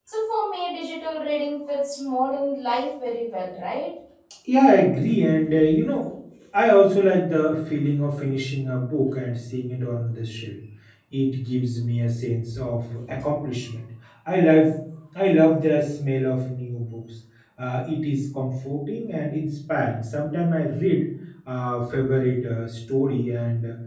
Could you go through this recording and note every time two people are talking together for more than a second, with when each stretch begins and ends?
none

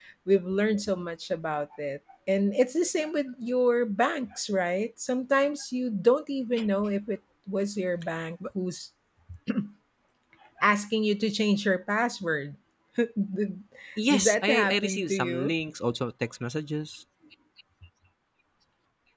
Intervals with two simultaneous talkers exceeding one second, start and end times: 14.1-15.5

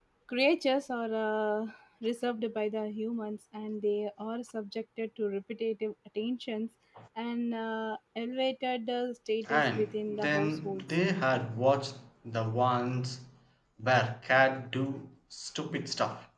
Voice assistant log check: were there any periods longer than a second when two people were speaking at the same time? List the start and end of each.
9.5-10.8

